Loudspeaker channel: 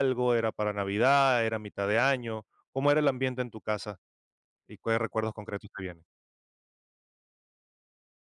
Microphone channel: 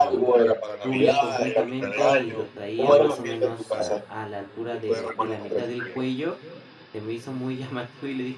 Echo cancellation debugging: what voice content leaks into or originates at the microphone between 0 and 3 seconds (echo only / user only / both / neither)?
both